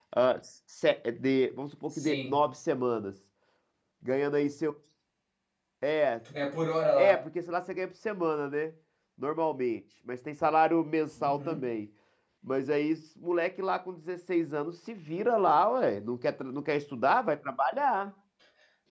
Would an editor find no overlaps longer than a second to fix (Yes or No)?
Yes